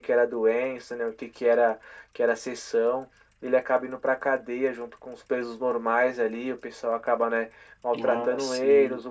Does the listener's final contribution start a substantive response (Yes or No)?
No